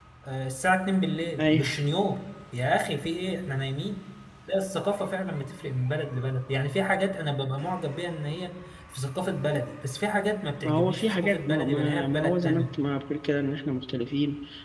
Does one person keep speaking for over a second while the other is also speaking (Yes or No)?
Yes